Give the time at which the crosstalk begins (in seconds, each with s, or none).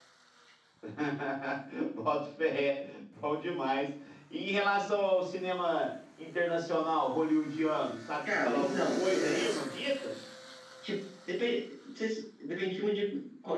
8.2 s